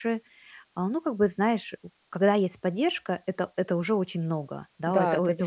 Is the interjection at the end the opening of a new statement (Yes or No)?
Yes